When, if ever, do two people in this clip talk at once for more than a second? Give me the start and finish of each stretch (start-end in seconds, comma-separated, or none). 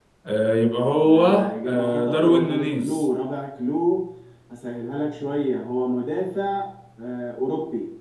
1.1-3.1